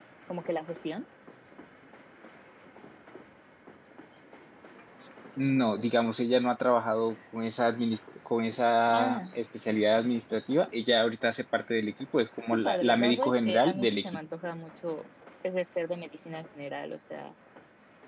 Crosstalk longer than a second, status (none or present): present